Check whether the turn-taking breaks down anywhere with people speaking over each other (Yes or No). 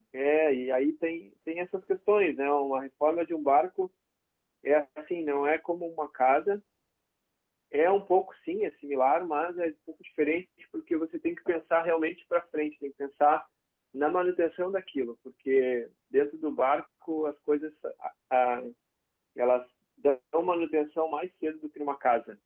No